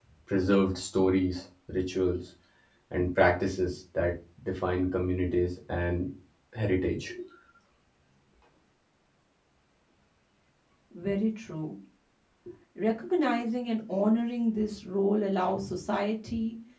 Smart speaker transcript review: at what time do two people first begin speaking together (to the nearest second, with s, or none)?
none